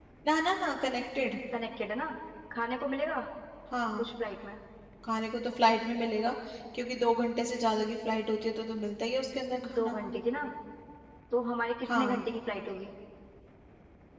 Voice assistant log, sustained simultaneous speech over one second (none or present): none